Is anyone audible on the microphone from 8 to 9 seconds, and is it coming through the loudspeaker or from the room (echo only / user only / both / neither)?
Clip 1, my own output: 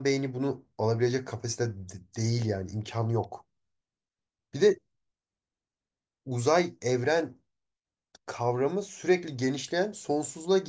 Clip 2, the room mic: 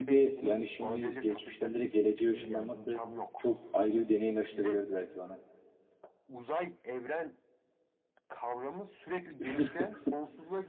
echo only